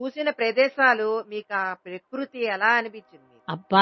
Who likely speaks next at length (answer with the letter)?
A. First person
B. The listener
B